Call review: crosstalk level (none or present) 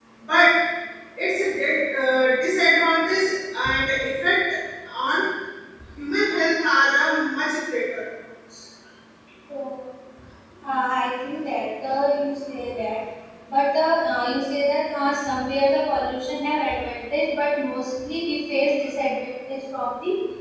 none